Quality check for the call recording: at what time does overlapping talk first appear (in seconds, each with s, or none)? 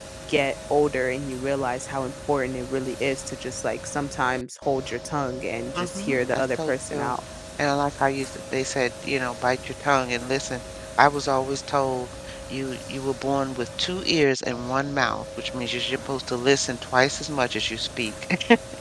5.8 s